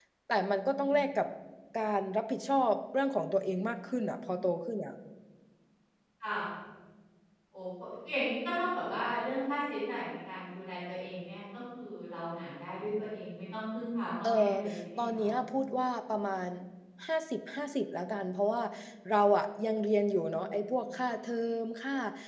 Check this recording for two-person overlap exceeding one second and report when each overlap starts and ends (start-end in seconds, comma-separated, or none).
none